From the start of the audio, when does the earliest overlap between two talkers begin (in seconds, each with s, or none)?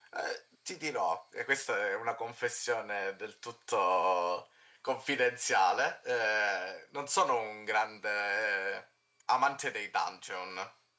none